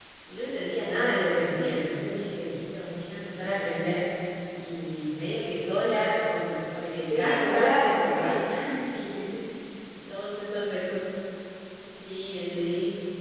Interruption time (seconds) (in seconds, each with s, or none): 7.0 s